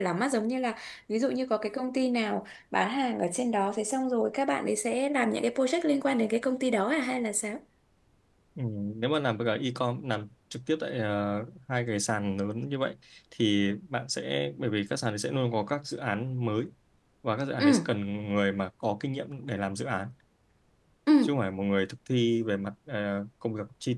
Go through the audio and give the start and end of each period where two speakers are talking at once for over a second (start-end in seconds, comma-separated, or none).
none